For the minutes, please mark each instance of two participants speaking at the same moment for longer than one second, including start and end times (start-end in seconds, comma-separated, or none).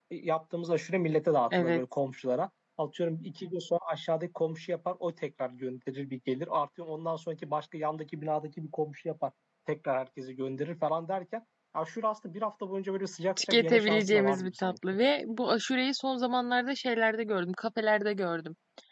13.4-14.8